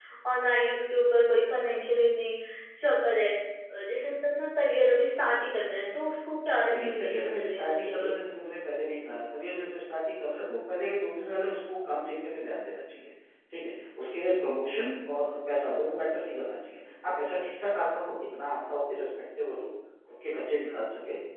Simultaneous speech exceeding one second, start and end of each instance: 6.7-8.1

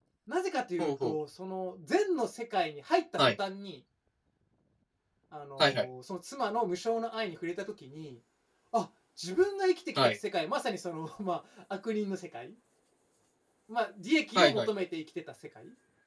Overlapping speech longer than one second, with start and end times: none

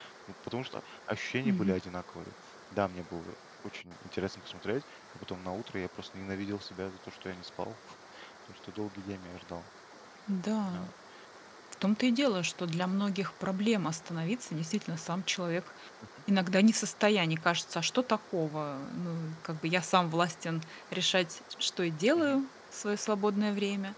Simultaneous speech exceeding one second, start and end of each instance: none

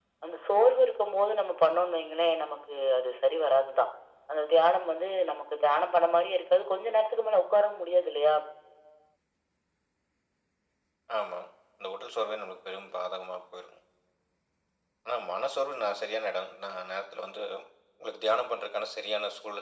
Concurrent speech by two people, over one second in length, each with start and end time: none

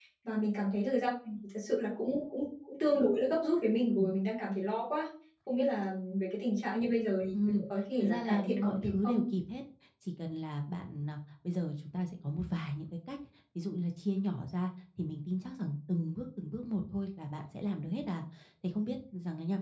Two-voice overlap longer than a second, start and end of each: 8.0-9.2

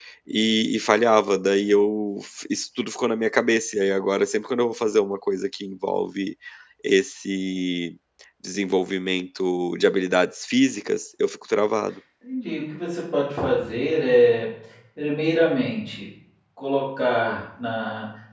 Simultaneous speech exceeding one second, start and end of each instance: none

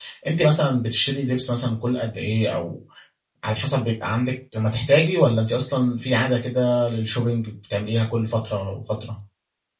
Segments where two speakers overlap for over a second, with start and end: none

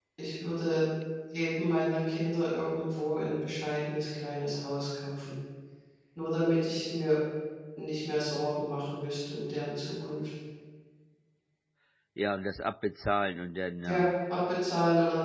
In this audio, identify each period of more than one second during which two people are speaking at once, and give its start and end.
none

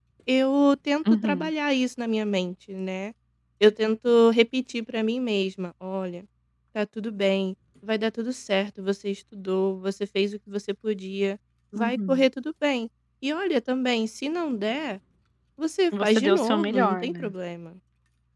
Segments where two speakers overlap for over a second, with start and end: 16.0-17.3

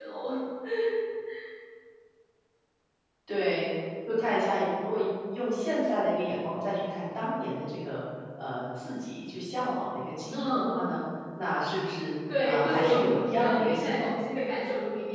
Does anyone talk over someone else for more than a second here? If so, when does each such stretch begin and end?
12.4-14.1

